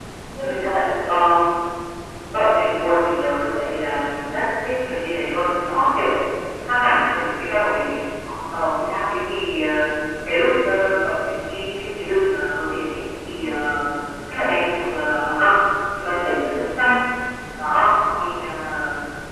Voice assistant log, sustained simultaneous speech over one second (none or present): none